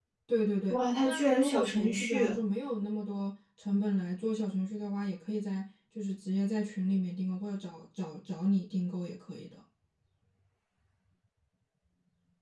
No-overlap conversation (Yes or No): No